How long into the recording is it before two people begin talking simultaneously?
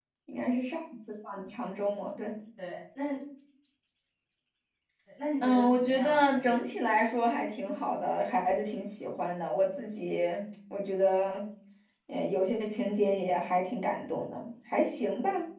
5.4 s

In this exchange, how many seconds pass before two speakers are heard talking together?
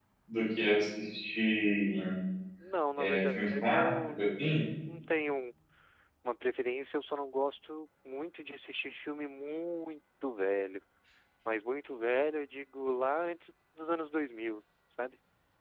3.0 s

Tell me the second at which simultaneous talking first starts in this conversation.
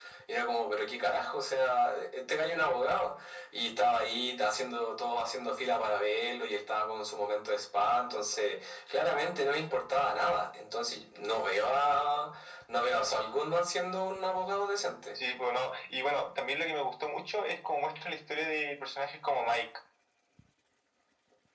none

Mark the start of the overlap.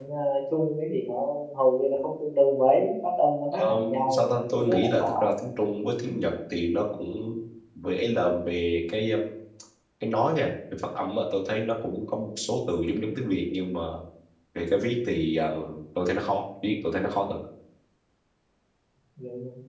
3.5 s

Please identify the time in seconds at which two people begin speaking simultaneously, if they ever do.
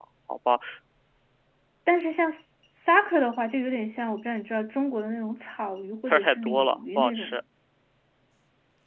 6.0 s

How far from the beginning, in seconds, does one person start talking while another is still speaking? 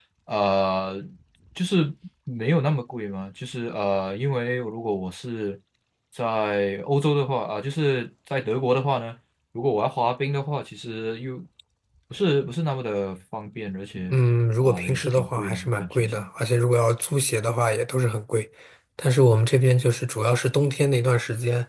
14.6 s

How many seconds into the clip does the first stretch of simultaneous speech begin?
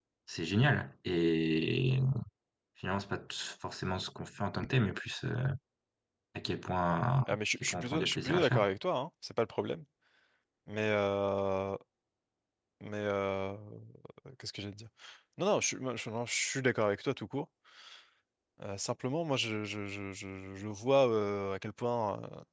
7.3 s

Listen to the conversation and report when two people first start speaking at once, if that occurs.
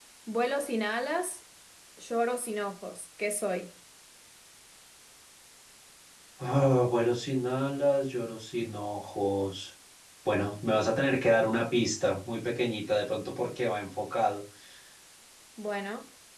none

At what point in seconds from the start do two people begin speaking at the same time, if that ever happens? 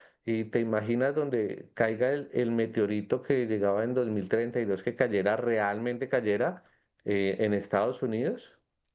none

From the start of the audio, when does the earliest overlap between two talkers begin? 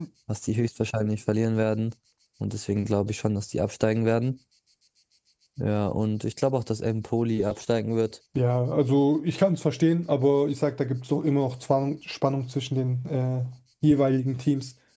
none

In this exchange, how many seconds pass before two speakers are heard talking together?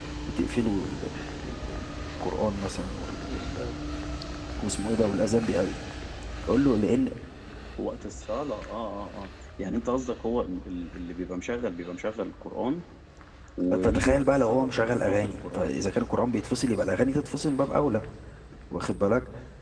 13.7 s

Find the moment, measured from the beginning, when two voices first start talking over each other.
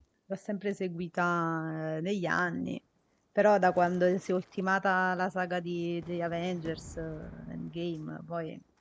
none

